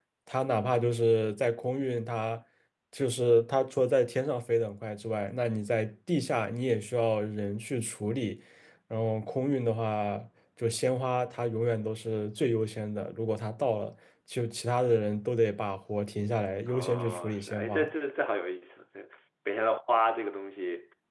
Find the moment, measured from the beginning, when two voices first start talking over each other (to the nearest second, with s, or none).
17 s